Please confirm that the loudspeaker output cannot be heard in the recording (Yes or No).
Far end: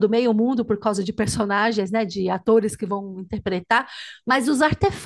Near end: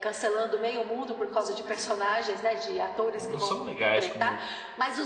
No